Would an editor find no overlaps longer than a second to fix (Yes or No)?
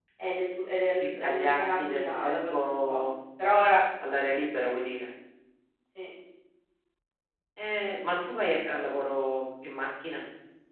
No